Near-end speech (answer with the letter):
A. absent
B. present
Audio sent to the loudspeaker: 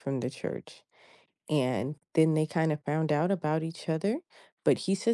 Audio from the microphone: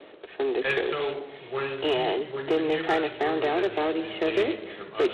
B